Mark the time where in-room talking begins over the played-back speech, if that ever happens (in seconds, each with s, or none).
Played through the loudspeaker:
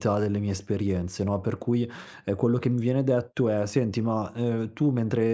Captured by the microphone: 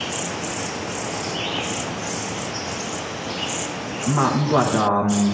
4.1 s